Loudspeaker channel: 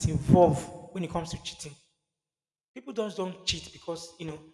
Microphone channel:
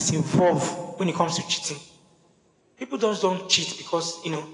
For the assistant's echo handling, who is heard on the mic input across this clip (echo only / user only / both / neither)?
echo only